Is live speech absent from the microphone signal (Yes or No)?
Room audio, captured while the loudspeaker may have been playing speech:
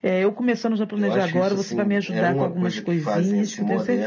Yes